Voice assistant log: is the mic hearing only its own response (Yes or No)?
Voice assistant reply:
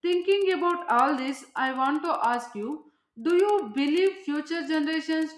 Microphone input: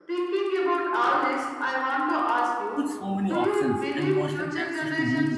No